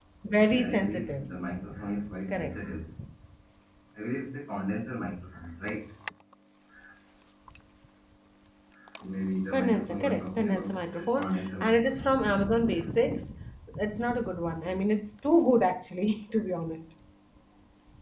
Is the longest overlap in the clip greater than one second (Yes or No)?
Yes